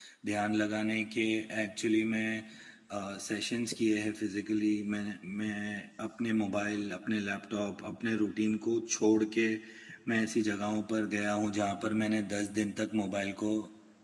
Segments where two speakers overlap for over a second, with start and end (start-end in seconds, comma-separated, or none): none